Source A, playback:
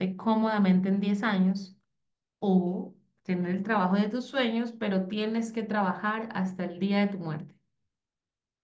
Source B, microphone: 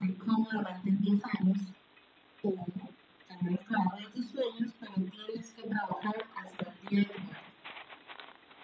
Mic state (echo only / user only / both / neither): echo only